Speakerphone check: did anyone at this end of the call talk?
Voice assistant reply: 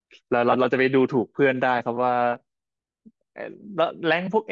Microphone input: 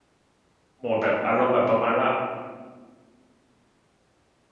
Yes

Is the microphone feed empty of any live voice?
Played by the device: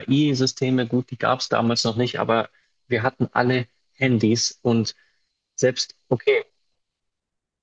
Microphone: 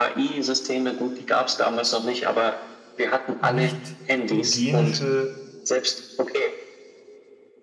No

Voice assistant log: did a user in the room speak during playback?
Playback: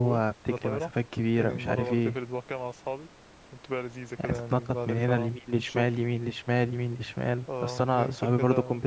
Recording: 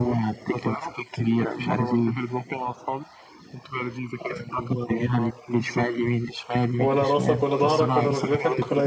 Yes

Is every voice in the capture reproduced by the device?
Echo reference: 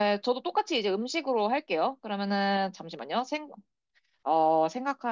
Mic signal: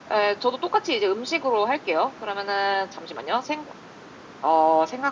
Yes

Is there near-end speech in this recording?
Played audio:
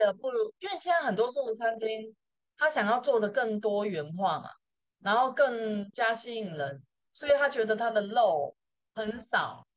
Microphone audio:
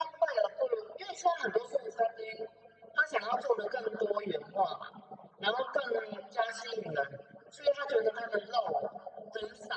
No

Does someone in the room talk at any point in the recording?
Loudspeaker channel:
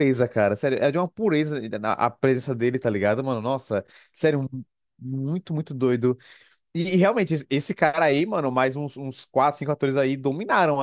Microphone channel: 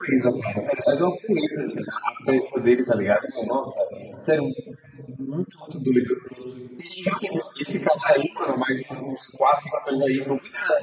No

